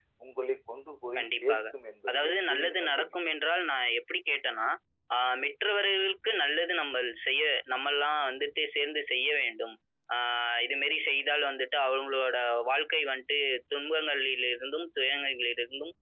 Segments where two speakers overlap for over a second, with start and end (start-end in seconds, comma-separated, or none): 2.1-3.3